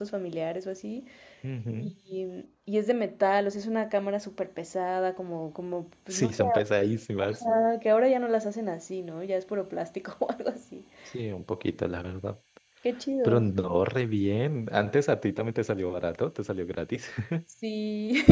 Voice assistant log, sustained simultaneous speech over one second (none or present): none